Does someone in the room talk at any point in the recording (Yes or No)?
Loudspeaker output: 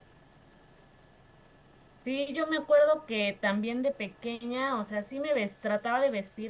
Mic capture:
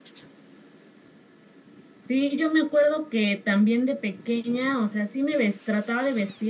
No